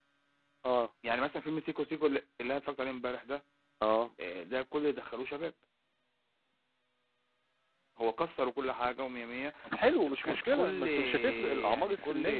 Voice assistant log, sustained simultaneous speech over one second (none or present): present